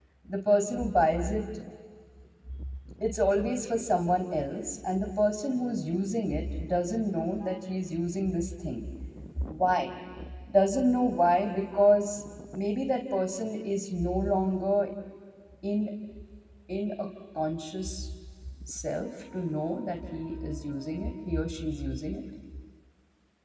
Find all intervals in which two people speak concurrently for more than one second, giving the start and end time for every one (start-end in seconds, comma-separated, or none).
none